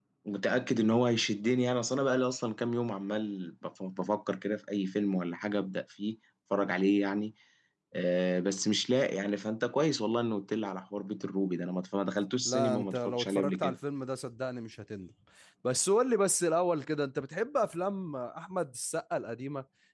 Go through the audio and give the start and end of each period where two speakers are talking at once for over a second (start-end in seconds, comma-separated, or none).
12.4-13.8